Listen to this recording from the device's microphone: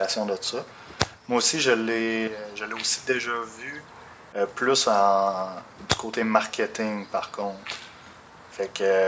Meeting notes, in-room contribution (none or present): present